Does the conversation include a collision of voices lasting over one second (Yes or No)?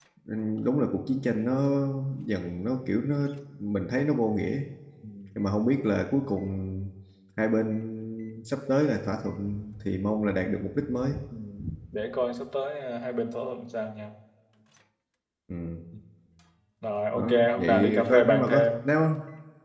Yes